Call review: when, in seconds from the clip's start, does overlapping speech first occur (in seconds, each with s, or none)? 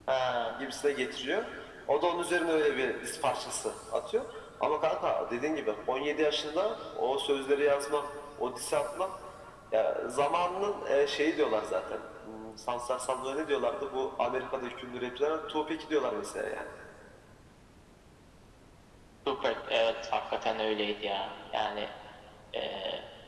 none